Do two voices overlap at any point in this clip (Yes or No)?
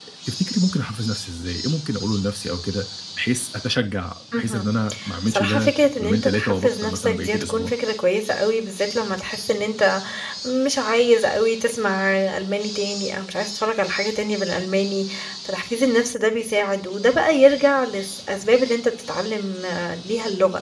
Yes